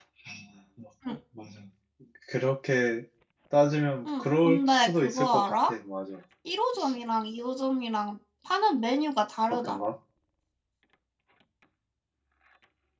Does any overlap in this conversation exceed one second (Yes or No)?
Yes